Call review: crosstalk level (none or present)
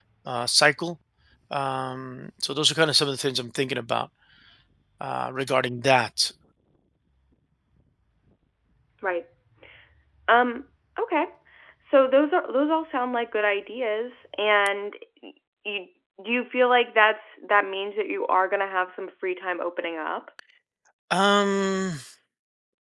none